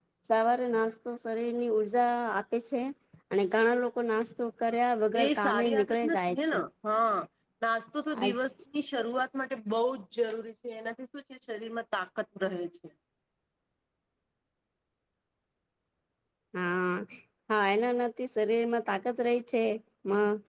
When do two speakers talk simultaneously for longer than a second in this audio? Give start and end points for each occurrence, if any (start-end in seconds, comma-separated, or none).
5.2-6.6